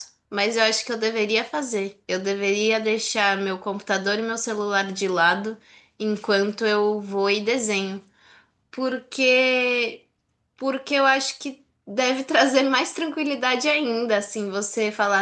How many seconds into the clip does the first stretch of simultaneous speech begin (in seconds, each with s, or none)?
none